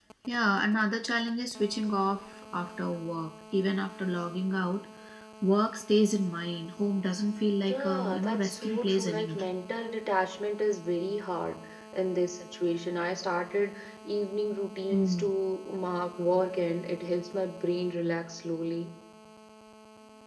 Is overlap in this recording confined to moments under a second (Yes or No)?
No